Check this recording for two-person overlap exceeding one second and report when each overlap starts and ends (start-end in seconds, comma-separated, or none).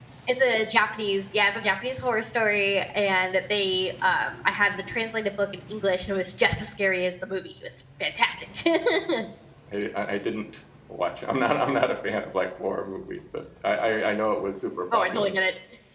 none